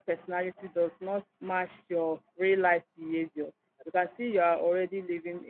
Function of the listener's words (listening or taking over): listening